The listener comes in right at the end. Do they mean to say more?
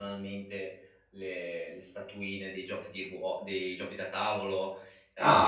Yes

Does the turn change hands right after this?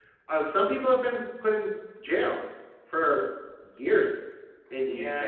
Yes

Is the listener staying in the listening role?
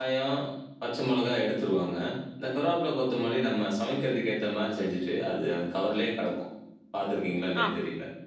No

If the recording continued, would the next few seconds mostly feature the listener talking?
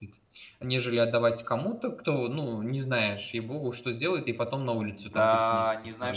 Yes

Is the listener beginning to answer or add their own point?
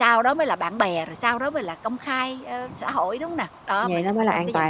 Yes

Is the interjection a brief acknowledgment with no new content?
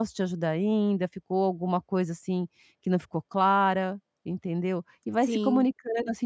Yes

